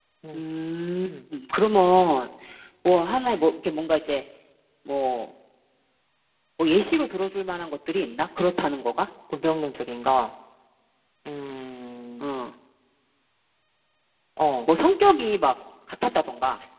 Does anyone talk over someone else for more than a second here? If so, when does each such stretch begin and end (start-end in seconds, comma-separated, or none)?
none